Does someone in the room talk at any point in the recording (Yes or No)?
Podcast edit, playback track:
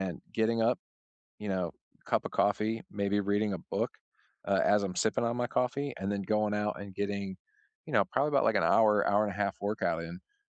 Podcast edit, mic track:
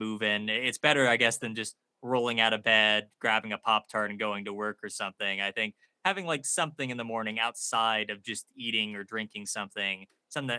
Yes